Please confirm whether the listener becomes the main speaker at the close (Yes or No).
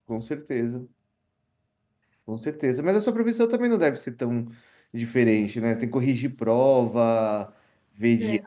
No